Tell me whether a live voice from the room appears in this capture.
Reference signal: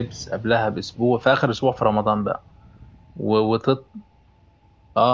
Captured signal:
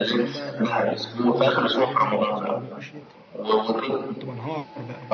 Yes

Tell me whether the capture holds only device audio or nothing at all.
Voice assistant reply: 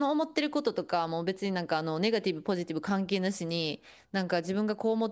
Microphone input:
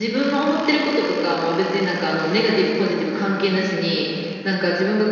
Yes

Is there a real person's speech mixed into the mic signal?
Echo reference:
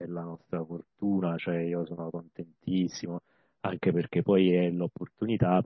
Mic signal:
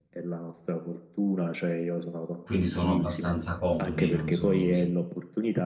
Yes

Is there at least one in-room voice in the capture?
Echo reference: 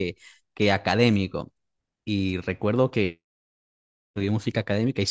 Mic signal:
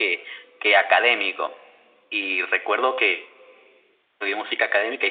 No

